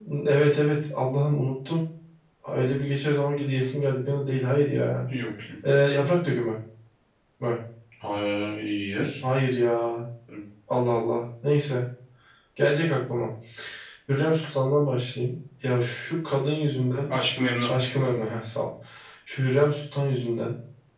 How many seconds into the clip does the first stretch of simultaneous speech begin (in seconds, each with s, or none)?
none